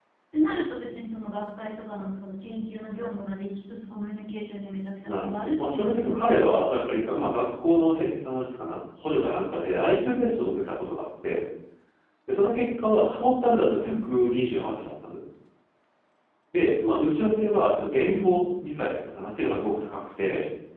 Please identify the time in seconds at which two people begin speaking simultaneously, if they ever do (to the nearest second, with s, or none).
5 s